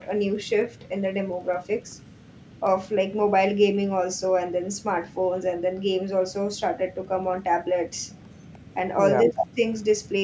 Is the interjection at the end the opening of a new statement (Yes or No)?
No